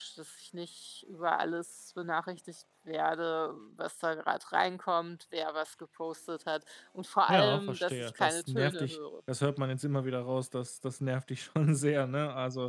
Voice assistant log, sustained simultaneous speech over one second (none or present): present